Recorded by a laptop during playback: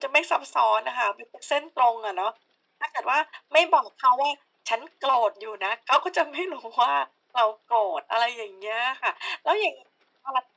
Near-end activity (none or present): none